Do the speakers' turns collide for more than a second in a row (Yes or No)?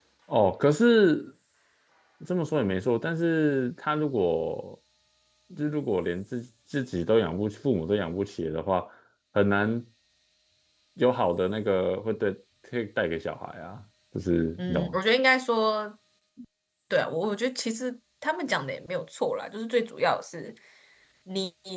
No